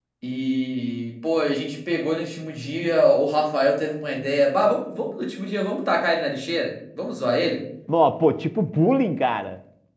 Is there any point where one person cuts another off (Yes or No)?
No